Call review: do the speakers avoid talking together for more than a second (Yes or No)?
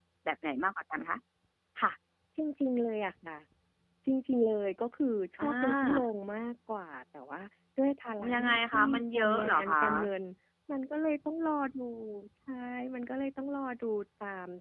No